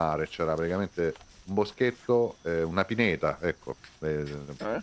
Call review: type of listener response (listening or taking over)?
listening